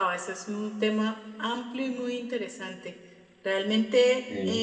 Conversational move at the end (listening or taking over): listening